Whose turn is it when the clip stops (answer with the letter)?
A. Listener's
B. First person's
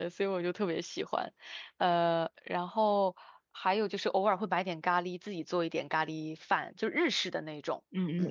A